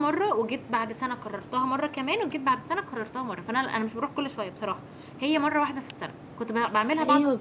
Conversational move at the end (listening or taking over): taking over